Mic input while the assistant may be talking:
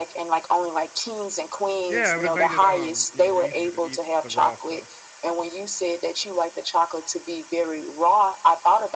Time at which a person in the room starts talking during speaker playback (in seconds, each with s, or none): 1.9 s